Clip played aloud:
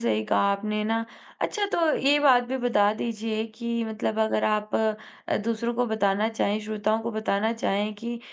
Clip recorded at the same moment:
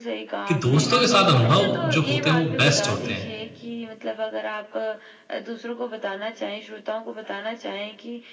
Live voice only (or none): कि दोस्तों के साथ अनुभव जो होते हैं वो बेस्ट होते हैं।